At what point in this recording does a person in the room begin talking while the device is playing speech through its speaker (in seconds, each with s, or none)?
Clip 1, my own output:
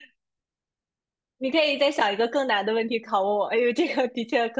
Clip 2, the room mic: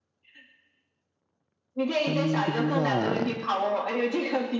1.9 s